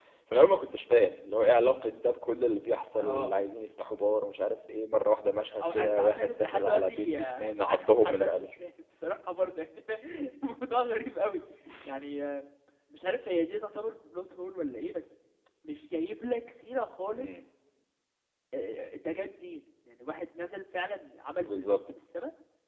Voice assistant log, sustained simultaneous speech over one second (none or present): present